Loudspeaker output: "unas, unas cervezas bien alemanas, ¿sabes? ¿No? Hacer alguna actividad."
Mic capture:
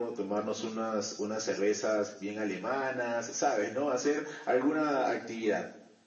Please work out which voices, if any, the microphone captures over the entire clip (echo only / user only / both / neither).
echo only